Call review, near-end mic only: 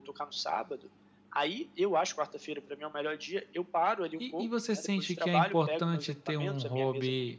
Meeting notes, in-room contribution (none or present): present